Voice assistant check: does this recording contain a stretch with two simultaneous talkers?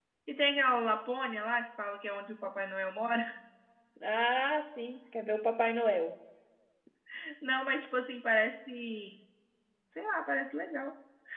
No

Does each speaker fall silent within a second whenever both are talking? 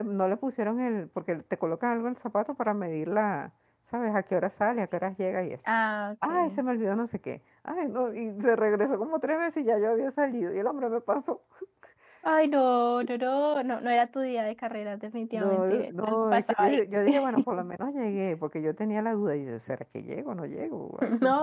No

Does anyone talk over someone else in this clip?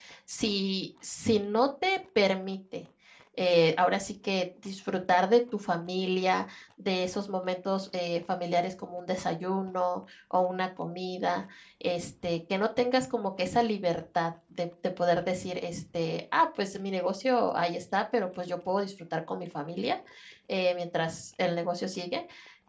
No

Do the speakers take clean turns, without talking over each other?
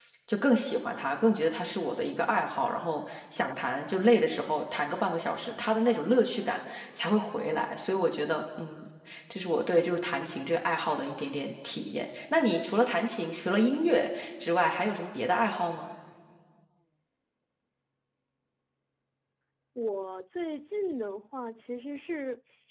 Yes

